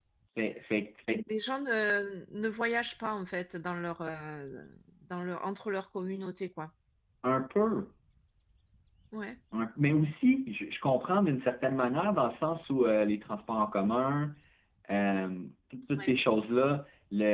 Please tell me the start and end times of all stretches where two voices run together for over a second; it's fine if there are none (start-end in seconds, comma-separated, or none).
none